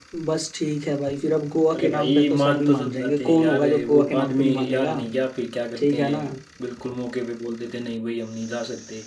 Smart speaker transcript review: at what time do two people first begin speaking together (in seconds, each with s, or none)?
1.8 s